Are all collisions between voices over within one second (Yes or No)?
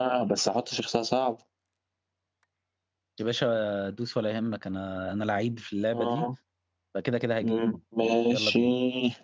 Yes